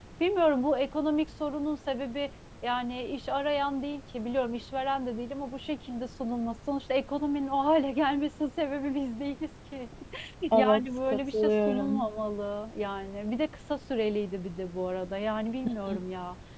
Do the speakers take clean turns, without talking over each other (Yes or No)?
No